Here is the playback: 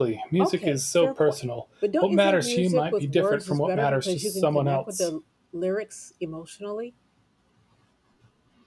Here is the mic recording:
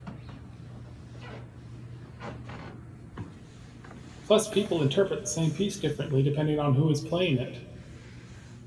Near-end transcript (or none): Plus, people interpret the same piece differently depending on who is playing it.